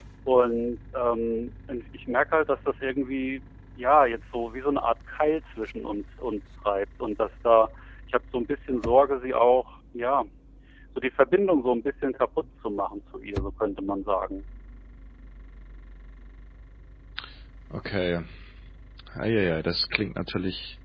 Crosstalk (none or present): none